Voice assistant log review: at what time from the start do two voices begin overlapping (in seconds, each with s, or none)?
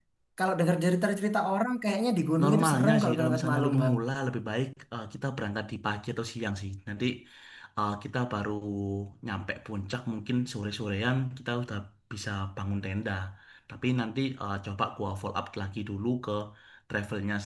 2.4 s